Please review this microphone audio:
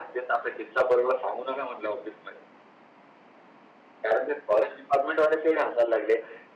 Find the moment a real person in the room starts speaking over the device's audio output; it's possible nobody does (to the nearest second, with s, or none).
none